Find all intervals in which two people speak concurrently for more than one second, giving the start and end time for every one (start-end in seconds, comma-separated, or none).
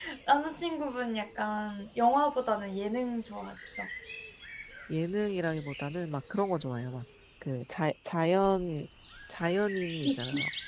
none